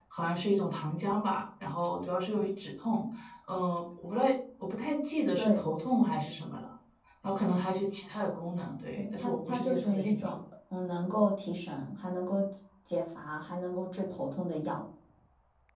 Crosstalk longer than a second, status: present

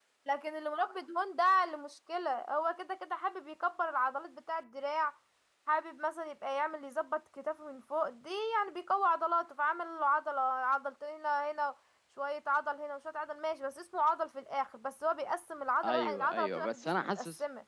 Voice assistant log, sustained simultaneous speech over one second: present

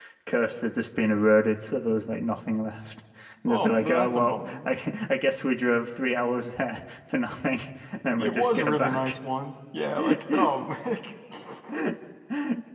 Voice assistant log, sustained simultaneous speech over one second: present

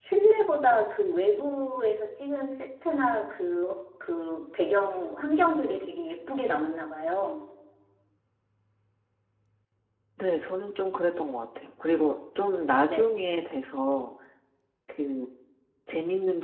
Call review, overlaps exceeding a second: none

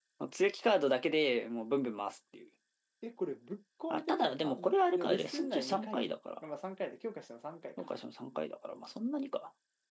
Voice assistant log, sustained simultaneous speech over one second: present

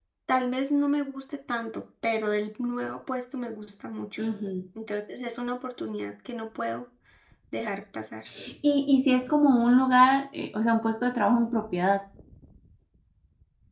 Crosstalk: none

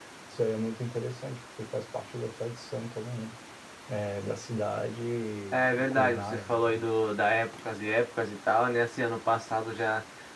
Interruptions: present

